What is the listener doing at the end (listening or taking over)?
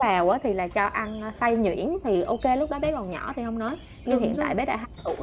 listening